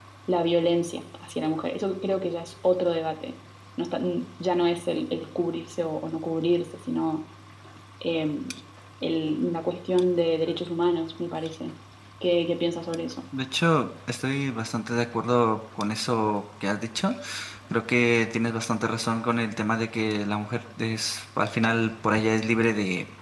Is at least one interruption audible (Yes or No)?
No